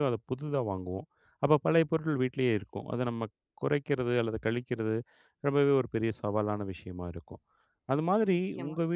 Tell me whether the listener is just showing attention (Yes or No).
Yes